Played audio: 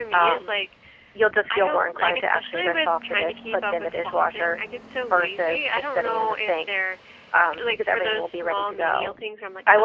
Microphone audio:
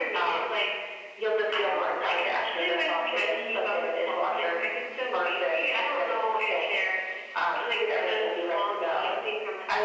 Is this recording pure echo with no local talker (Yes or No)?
Yes